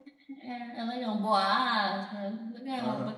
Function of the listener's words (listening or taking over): taking over